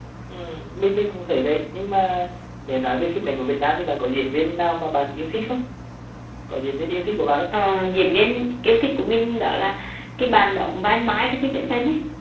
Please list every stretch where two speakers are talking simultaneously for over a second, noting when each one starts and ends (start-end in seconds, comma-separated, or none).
none